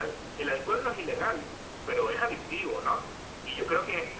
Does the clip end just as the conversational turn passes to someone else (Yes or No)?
No